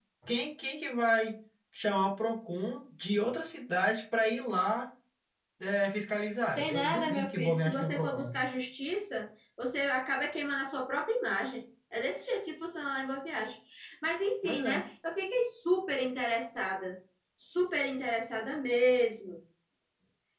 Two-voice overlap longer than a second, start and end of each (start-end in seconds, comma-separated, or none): 6.6-8.3